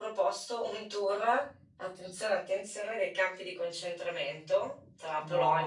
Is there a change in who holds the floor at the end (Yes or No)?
No